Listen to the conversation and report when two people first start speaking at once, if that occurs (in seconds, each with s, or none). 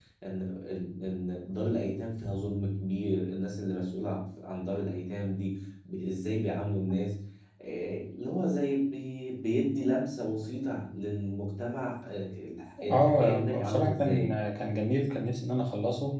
12.8 s